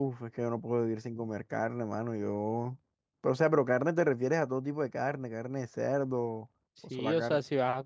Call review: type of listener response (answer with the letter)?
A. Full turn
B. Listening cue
A